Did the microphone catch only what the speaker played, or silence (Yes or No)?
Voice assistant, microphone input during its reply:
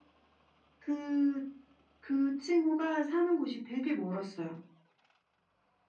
Yes